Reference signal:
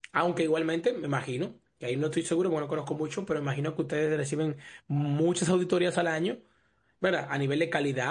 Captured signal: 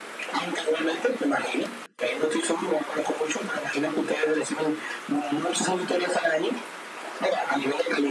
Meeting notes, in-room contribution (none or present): none